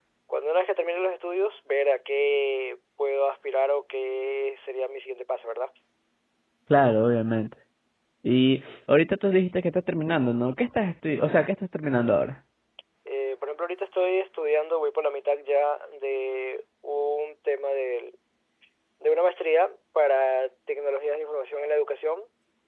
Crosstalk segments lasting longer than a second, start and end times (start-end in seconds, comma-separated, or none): none